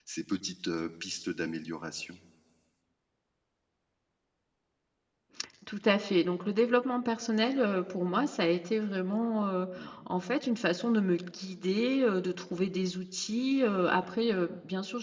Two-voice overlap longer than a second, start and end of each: none

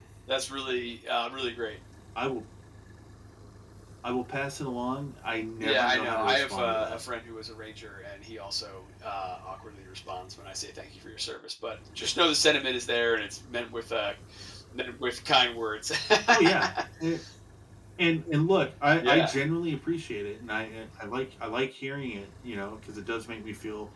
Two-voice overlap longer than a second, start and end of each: 5.6-7.0

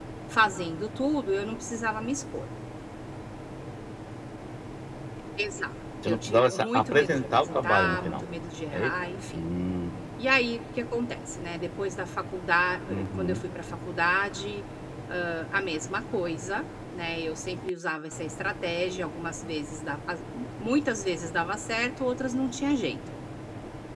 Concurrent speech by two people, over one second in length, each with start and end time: 6.1-8.2

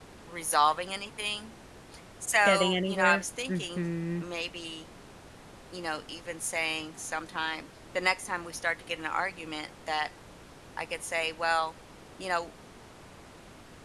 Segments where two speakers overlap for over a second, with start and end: 2.5-3.8

